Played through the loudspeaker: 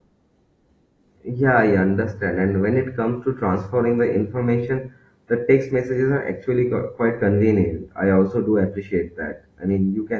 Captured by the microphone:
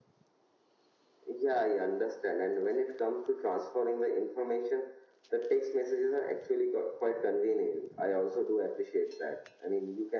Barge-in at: none

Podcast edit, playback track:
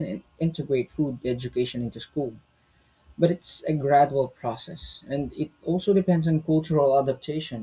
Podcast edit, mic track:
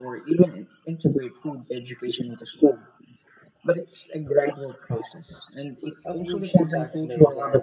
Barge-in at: 6 s

